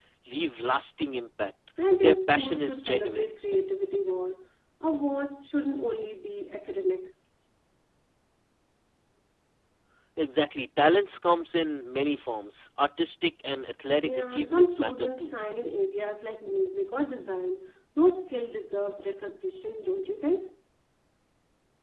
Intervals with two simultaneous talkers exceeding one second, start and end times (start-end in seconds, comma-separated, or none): 2.0-3.3, 14.0-15.3